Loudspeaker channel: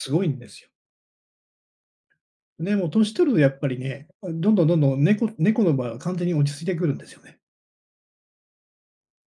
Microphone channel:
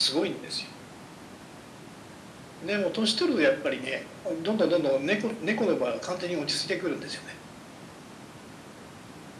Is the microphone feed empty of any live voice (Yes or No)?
Yes